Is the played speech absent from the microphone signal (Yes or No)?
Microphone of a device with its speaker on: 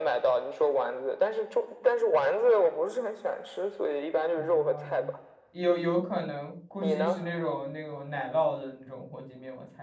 No